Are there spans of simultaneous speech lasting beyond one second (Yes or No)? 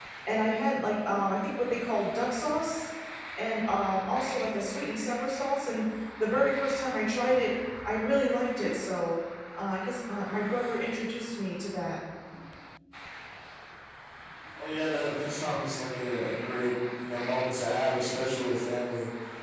No